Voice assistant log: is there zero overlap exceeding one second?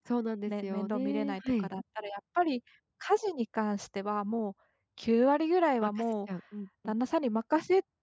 No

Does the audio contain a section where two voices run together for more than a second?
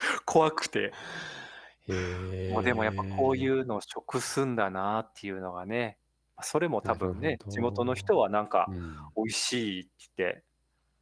Yes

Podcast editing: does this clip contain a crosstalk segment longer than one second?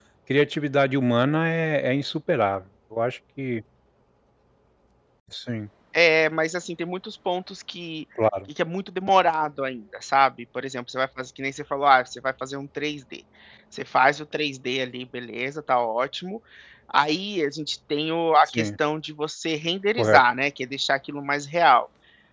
No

